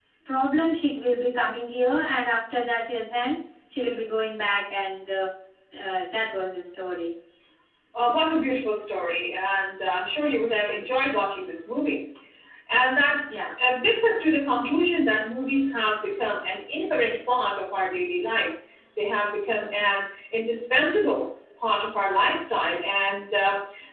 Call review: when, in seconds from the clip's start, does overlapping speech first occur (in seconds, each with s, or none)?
none